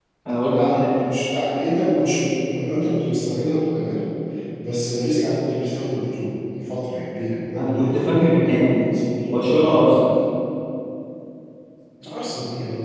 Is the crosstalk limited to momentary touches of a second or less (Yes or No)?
No